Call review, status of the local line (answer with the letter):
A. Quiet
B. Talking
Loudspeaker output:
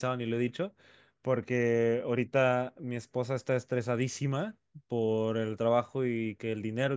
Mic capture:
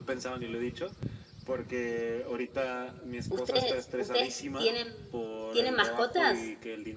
B